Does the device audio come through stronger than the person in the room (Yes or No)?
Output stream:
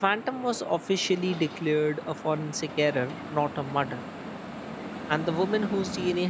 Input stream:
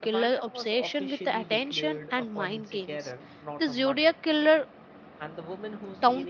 No